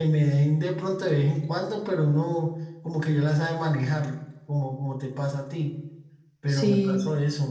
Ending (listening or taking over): listening